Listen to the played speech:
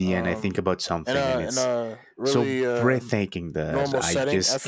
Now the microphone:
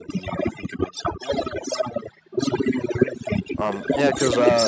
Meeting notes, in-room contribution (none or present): present